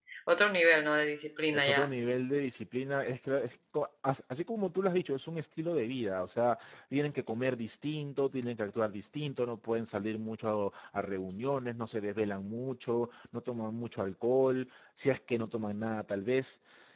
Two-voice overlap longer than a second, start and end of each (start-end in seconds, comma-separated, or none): none